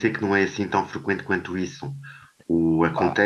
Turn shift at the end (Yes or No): No